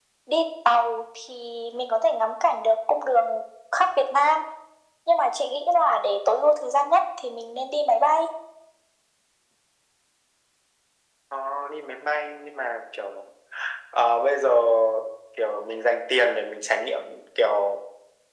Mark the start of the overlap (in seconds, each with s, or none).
none